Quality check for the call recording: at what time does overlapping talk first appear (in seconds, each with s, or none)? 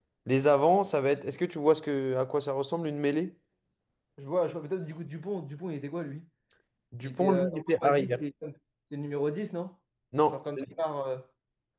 7.0 s